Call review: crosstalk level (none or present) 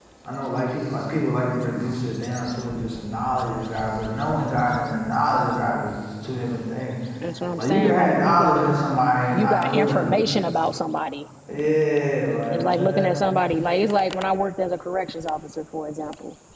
present